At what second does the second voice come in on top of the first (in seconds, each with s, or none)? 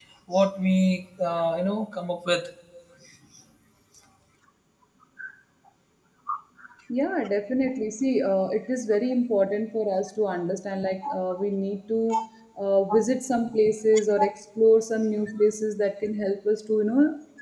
none